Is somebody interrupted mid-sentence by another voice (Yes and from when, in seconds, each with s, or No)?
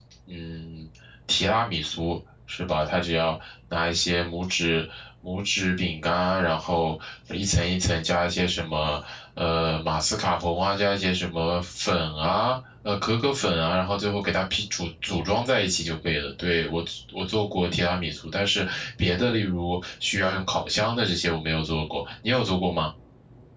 No